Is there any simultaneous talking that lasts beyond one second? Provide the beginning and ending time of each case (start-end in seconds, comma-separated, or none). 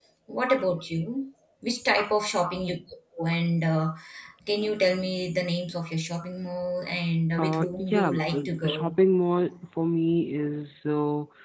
7.4-8.7